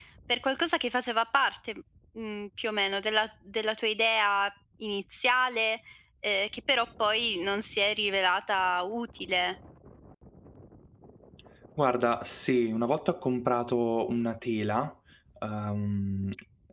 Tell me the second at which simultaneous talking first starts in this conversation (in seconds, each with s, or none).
none